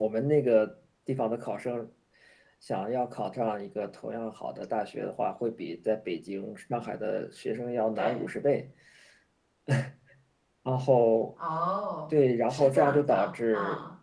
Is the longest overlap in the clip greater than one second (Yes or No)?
Yes